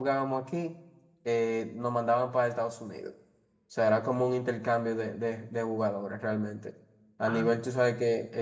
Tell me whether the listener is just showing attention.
Yes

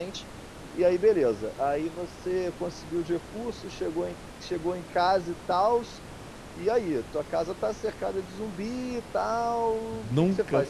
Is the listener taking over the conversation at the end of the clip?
Yes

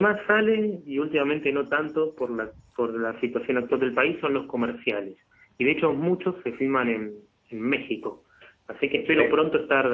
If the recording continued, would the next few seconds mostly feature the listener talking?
No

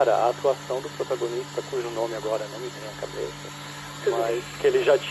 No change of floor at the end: Yes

